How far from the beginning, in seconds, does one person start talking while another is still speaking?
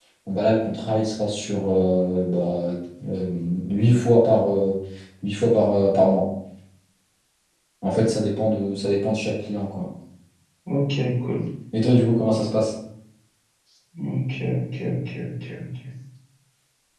none

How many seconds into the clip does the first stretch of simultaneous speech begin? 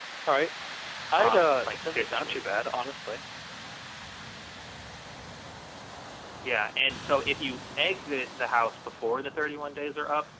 1 s

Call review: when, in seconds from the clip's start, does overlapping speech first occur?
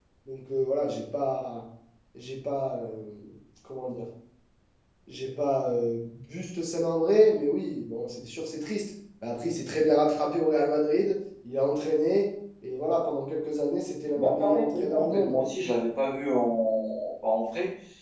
14 s

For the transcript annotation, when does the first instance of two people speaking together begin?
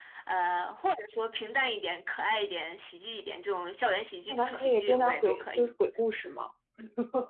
4 s

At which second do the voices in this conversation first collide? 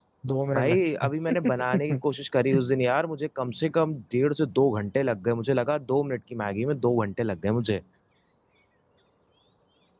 1 s

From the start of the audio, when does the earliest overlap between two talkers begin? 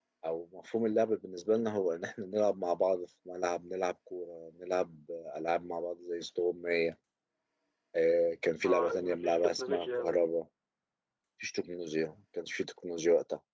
9 s

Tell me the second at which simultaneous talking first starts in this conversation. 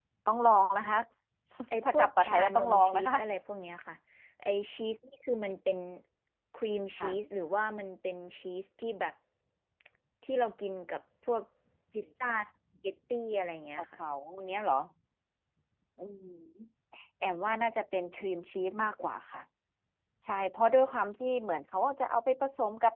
2 s

